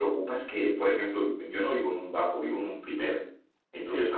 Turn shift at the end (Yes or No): No